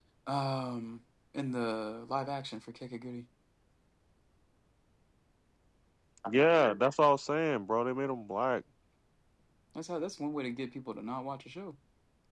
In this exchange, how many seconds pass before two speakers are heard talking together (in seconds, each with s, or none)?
none